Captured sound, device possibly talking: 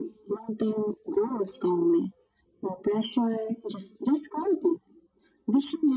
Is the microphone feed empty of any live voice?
Yes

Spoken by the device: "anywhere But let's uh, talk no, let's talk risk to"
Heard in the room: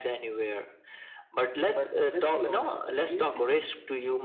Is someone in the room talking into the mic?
Yes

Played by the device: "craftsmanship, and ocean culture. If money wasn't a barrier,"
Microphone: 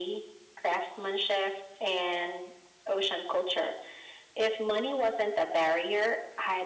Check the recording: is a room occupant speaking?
No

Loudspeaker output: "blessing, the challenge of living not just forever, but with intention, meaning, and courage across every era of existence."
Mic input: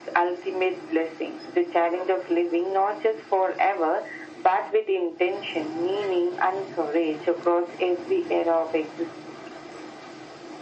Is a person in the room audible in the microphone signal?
No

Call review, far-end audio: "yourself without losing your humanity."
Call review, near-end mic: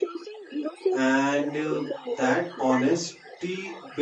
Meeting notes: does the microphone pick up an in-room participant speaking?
Yes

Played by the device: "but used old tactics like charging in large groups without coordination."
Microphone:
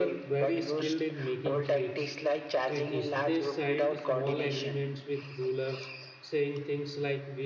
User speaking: Yes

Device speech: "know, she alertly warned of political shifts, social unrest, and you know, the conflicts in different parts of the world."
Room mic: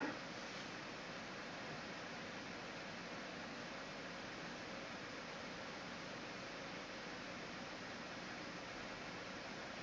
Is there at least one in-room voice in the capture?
No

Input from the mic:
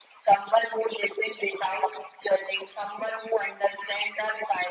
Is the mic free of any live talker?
Yes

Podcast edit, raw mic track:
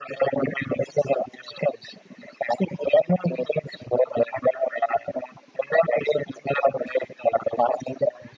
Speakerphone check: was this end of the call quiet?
Yes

